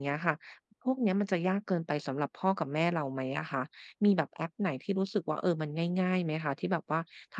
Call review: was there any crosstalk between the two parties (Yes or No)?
No